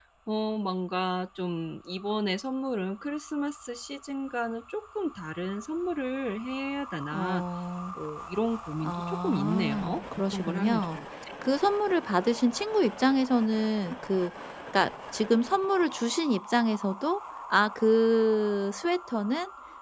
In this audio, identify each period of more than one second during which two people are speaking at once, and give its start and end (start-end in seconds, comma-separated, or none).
8.8-11.0